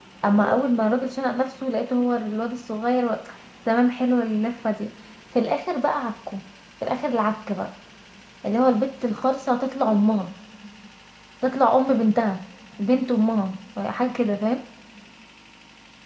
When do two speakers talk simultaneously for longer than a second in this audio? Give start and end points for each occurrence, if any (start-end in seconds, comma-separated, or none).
none